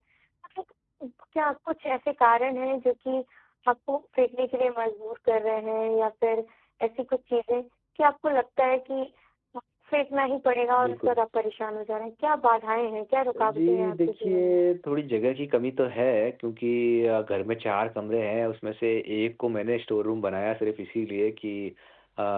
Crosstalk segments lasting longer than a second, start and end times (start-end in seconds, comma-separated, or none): 13.4-14.6